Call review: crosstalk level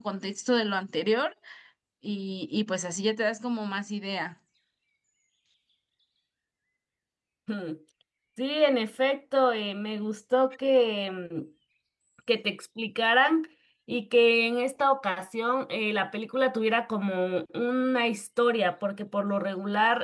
none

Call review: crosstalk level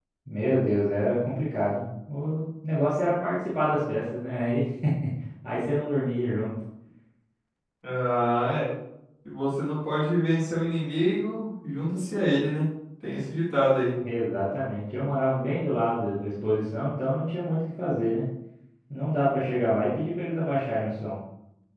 none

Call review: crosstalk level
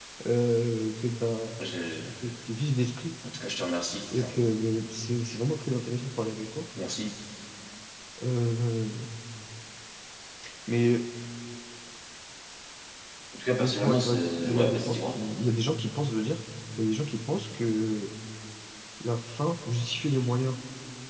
present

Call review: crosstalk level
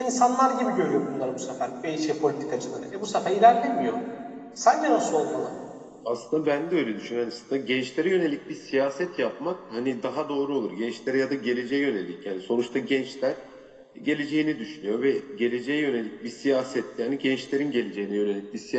none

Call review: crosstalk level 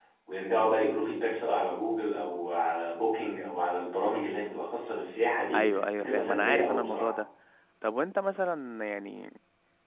present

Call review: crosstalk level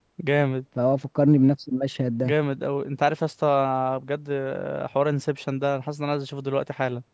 none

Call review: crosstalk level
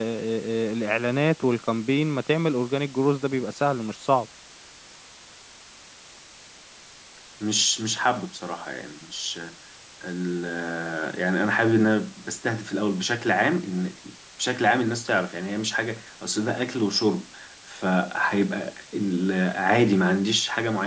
none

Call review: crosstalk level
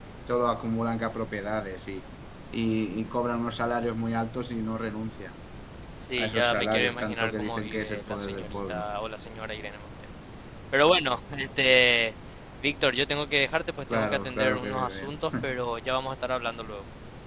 present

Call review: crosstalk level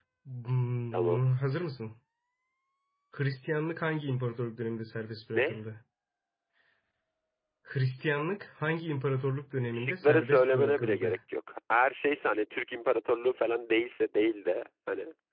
present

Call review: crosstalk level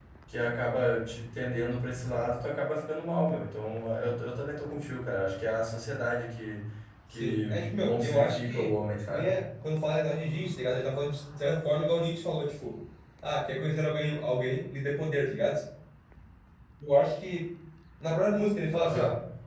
present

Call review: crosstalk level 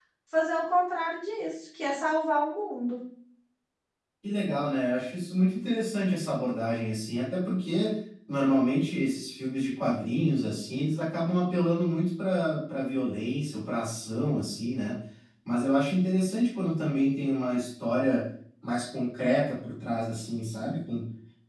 none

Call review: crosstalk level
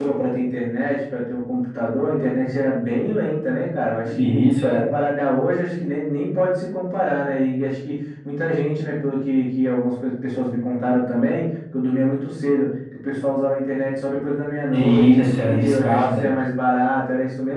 present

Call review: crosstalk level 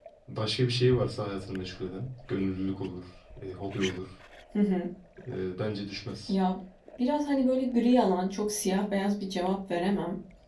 none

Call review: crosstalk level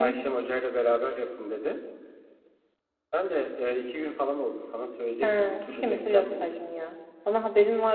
present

